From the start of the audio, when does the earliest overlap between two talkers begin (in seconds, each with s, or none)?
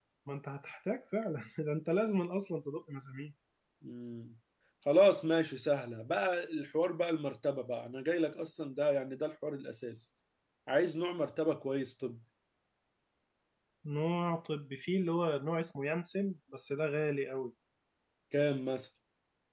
none